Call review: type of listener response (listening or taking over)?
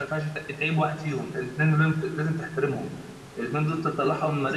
listening